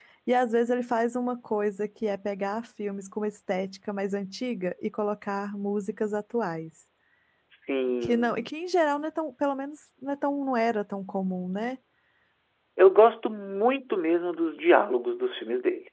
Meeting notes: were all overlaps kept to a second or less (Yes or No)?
Yes